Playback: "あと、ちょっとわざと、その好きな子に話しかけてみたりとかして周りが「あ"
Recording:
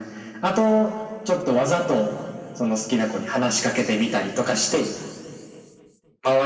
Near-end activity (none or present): none